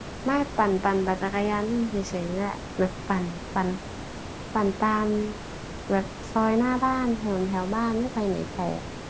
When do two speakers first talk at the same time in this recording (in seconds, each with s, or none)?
none